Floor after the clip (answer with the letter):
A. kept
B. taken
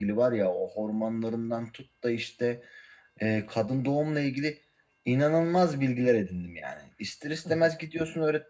A